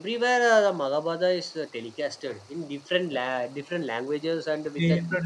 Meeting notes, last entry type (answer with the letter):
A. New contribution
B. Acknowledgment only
A